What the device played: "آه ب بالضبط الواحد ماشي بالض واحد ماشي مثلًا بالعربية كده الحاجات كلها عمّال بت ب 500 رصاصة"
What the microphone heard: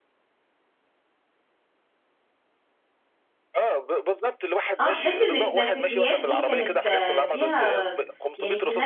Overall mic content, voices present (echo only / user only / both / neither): both